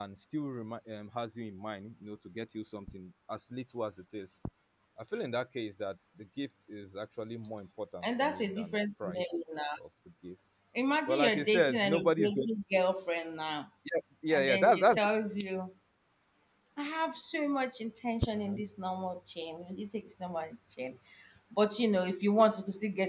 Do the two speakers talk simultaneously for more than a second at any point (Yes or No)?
Yes